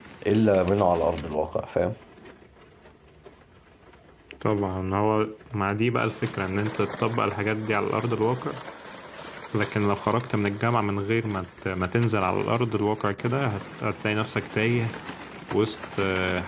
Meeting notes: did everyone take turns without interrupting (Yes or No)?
Yes